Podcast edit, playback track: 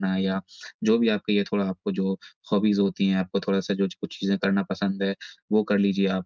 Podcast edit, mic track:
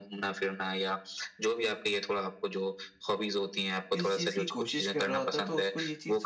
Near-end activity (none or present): present